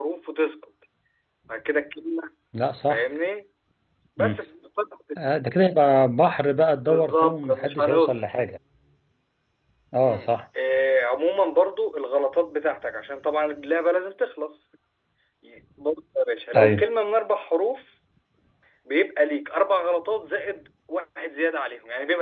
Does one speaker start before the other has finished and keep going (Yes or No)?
Yes